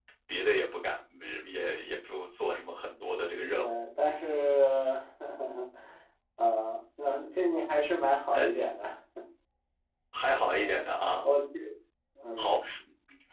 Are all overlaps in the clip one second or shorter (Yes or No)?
Yes